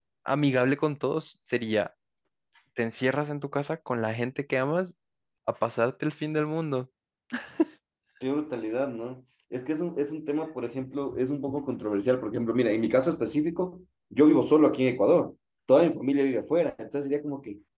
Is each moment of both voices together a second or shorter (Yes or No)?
Yes